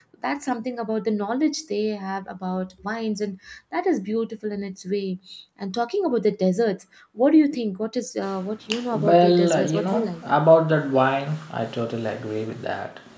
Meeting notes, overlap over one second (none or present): present